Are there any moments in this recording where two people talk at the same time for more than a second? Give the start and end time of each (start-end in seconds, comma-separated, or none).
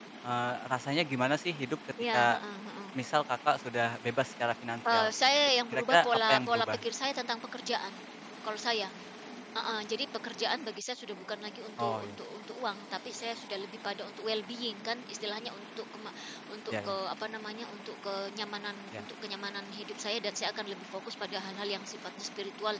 4.9-6.8